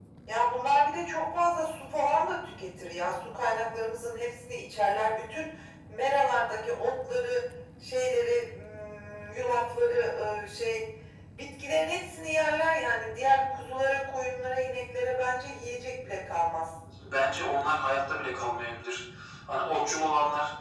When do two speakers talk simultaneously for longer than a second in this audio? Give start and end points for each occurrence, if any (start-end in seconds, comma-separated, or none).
none